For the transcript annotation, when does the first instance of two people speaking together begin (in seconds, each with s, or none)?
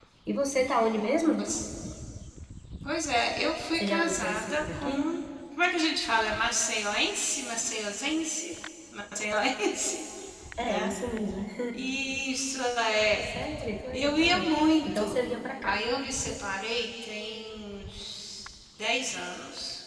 3.7 s